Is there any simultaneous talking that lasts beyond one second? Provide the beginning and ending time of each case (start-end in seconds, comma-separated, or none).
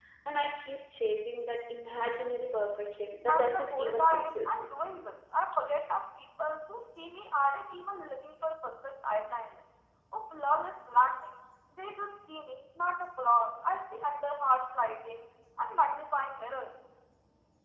3.3-4.5